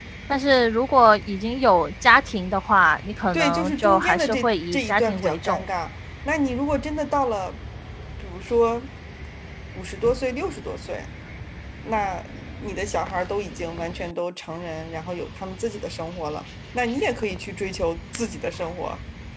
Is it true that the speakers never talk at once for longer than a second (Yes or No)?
No